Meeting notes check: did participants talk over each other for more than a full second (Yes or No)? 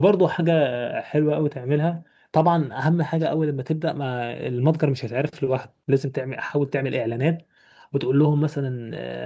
No